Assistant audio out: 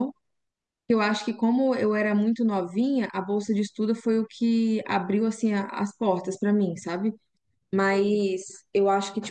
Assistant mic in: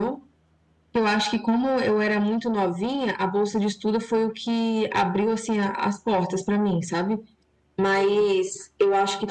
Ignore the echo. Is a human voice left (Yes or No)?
No